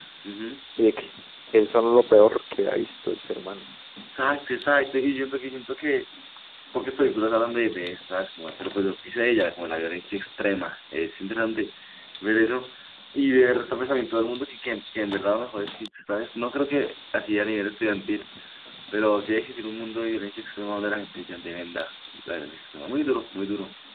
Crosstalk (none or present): none